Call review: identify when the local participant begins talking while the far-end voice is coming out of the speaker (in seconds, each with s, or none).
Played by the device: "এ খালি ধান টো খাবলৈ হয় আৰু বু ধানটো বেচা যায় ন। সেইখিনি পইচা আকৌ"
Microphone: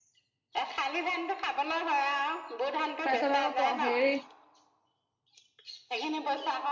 3.0 s